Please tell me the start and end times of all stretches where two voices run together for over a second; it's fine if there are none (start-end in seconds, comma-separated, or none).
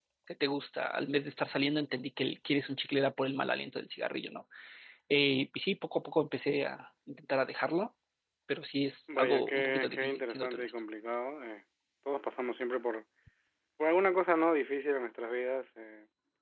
9.2-10.6